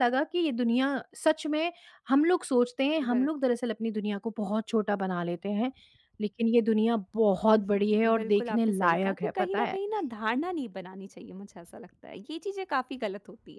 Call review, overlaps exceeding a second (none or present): present